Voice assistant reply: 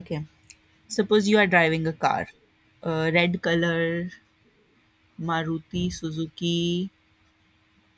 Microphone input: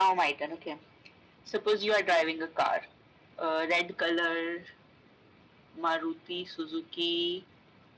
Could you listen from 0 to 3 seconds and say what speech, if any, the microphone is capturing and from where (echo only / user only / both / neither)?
echo only